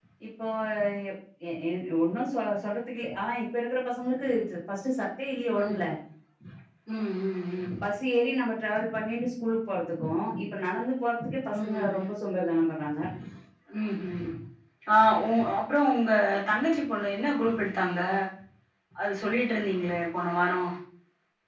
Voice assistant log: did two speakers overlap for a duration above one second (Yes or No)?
No